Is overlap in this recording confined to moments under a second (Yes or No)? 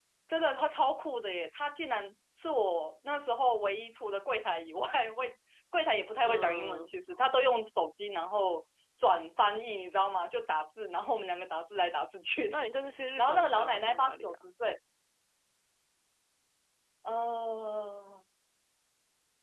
No